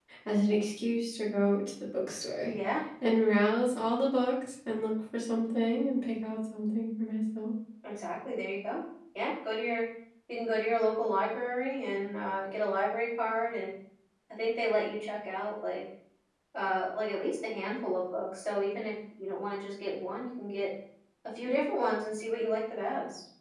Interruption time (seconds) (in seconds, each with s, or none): none